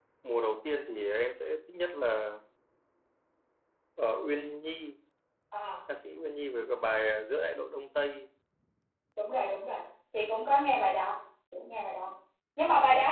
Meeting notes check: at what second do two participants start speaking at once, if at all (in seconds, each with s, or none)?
none